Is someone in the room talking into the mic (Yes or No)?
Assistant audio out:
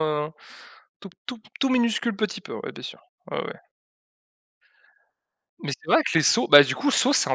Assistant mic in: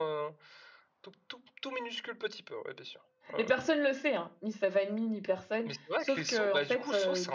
Yes